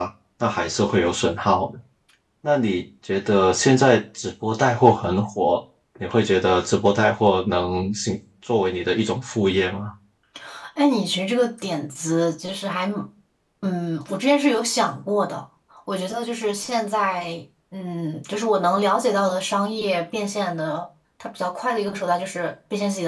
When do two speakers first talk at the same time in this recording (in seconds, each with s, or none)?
none